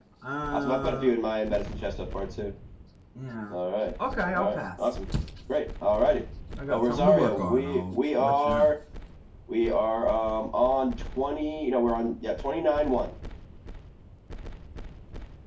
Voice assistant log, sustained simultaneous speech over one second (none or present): present